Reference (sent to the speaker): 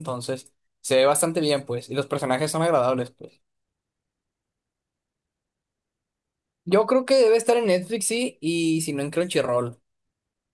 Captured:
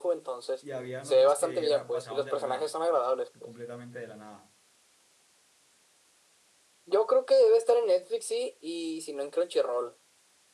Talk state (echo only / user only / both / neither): both